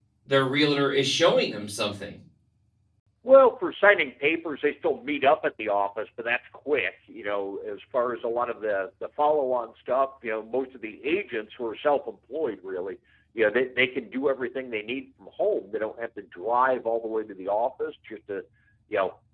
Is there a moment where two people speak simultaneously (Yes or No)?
No